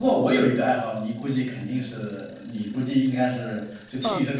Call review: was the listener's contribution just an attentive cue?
No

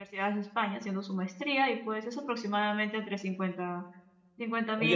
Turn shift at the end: Yes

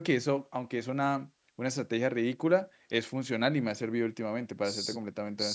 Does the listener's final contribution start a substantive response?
Yes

